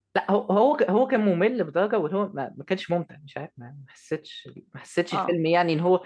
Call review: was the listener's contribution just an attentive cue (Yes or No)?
Yes